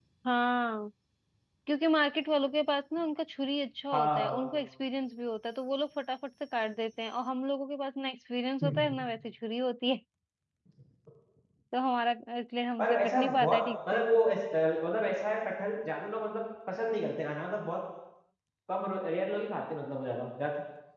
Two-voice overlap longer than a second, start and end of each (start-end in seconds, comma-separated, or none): 12.8-14.1